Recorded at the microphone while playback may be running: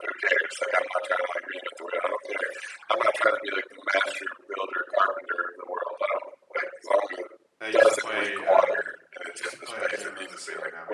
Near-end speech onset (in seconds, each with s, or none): 7.6 s